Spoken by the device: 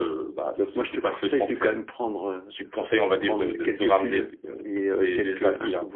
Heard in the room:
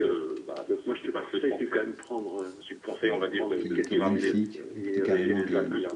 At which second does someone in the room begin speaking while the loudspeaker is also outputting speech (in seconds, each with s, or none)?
3.0 s